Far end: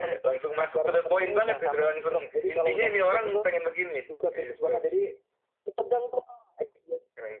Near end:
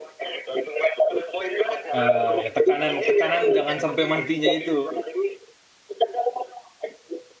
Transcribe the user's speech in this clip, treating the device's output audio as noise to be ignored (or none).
ah ya tekanan tekanan jangan sampai matinya itu